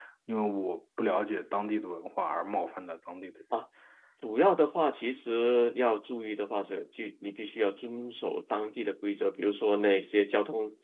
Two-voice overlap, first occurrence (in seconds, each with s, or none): none